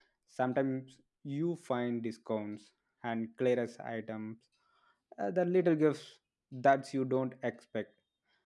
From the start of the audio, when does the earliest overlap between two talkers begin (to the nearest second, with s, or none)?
none